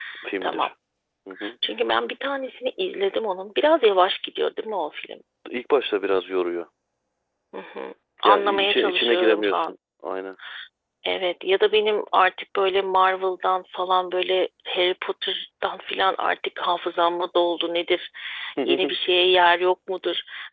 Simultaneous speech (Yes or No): Yes